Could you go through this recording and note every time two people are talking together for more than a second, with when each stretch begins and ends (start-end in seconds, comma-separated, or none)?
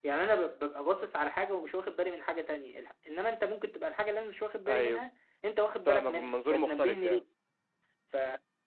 5.8-7.2